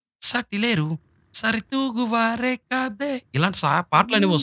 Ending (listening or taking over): taking over